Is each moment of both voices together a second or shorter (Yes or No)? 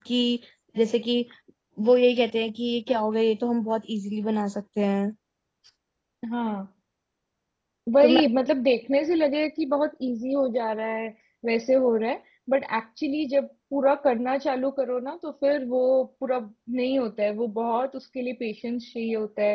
Yes